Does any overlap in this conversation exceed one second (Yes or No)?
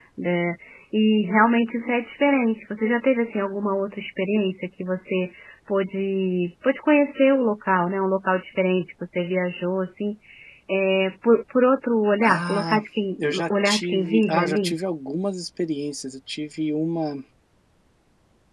Yes